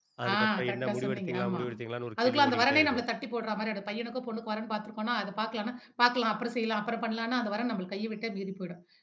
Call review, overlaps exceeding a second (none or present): present